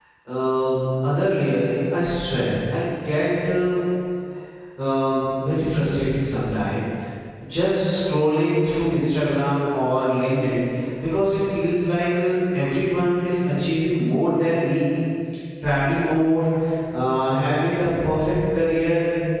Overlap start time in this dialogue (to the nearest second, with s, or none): none